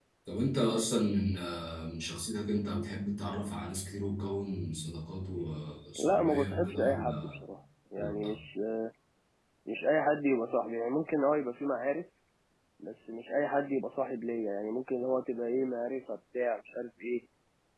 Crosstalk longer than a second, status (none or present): present